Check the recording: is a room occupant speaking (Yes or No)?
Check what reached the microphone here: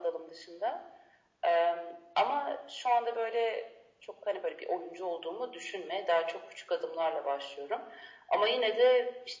No